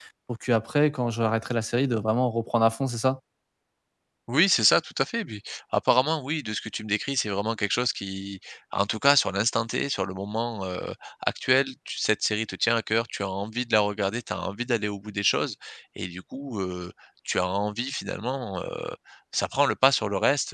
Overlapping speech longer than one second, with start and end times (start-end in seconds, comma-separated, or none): none